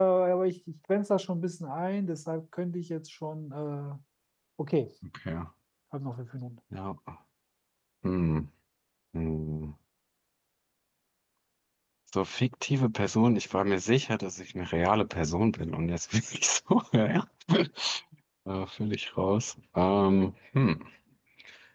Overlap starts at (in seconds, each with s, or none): none